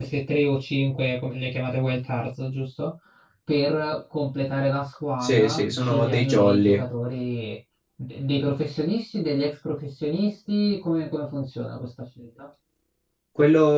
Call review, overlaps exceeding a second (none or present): present